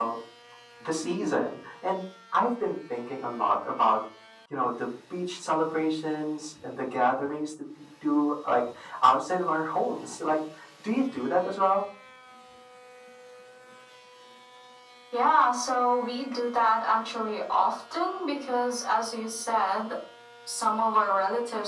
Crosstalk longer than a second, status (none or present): none